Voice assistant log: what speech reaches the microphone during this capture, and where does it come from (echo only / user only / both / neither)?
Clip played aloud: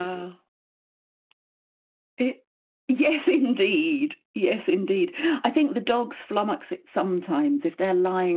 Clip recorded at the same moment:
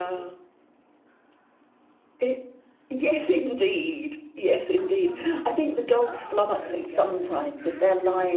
both